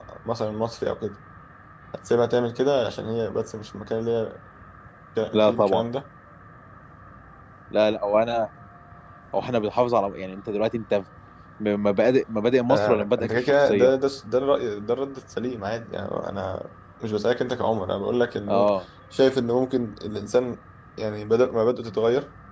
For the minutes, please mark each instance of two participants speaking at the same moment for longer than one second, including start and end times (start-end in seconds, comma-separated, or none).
12.7-13.9